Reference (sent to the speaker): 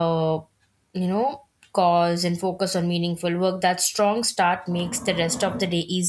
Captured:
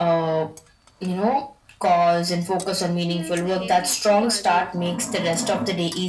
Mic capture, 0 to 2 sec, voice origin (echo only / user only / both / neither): echo only